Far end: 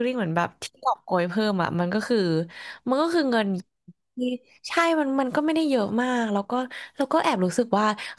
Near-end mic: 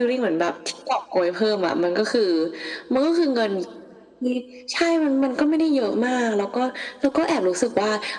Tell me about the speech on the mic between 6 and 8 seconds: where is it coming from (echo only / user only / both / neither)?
echo only